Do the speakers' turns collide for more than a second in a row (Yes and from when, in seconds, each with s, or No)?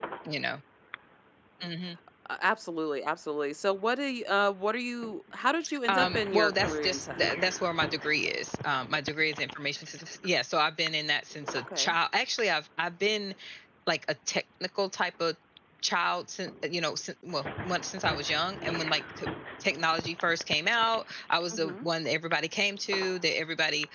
Yes, from 5.9 s